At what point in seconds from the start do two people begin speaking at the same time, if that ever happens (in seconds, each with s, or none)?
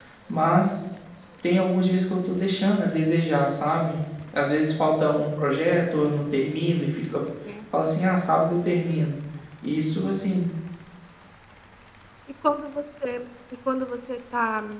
none